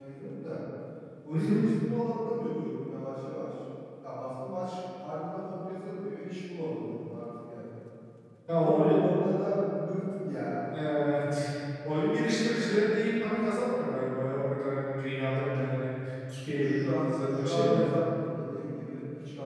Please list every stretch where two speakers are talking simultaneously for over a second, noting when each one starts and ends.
16.6-17.8

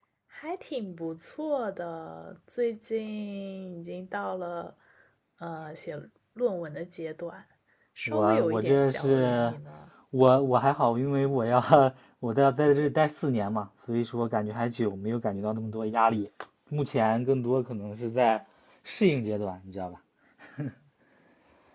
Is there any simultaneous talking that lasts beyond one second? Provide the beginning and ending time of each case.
8.1-9.5

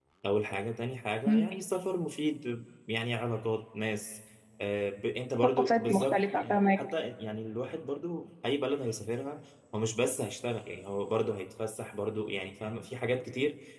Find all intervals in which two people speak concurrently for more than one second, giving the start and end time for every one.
5.4-6.8

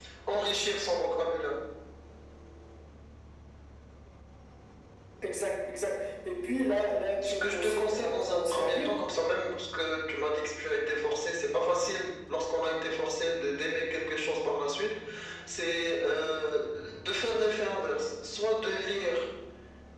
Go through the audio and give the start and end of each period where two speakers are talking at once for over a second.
7.2-8.9

